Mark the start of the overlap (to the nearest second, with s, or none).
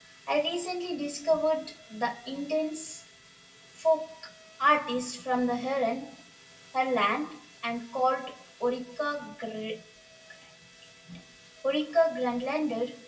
none